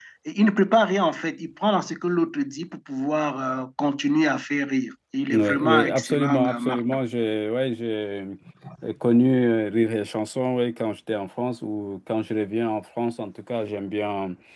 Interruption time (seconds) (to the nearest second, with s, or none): 5 s